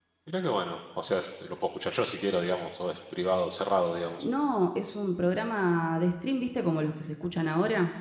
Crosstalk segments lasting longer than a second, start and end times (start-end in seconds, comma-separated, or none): none